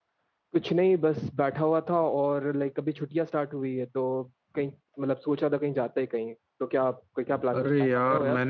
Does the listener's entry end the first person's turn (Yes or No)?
Yes